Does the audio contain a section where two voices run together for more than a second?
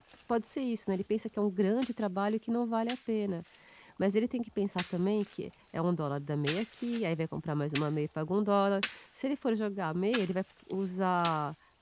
No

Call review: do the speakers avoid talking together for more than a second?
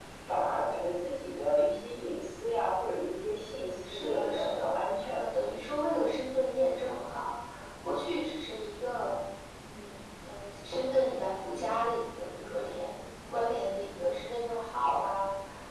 No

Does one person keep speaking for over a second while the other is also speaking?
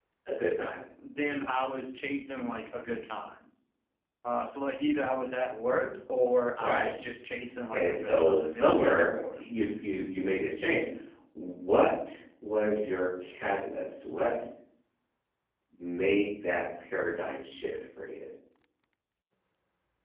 Yes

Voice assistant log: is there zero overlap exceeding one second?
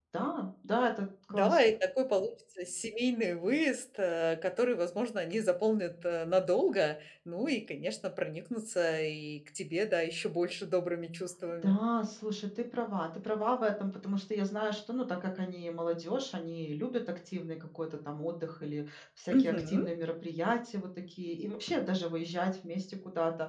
Yes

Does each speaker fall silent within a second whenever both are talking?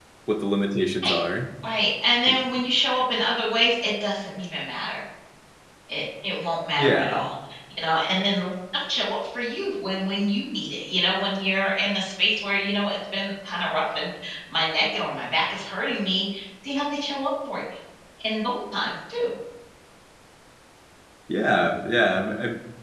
Yes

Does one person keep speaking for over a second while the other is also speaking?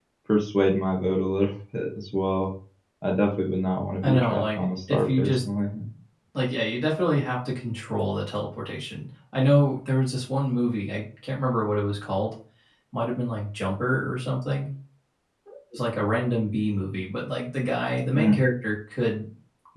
Yes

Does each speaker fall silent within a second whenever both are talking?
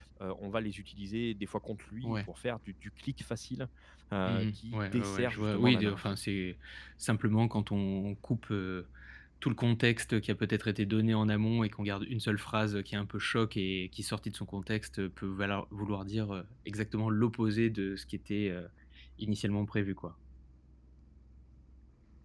No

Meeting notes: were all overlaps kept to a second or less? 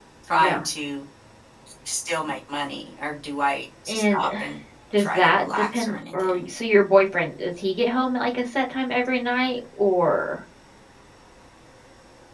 No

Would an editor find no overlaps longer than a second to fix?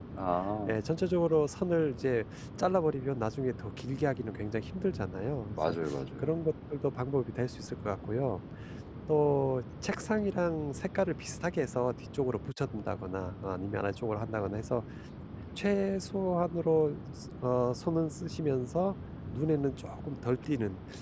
Yes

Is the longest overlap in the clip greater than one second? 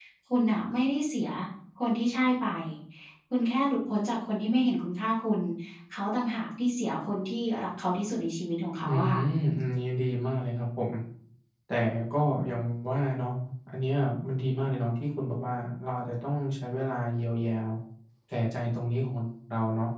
No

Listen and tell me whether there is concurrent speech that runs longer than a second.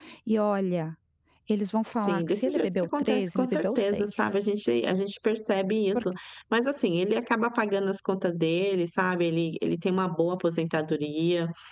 Yes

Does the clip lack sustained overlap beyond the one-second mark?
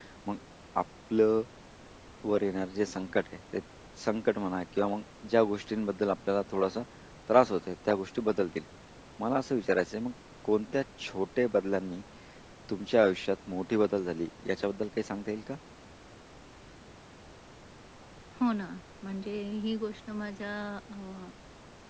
Yes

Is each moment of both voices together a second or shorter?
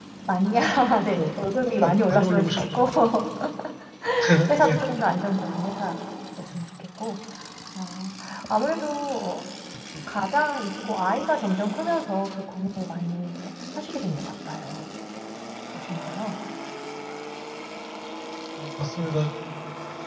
No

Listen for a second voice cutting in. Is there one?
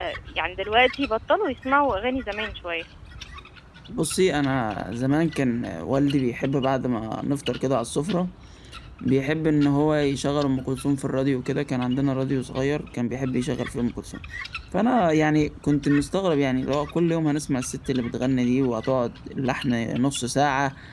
No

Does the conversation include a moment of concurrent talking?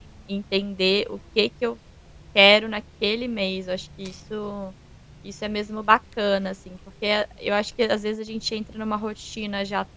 No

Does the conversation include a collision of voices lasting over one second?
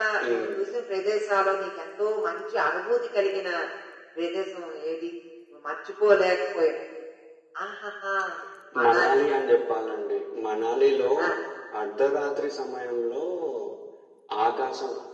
No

